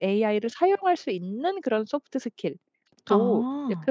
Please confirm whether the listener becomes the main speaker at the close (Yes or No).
No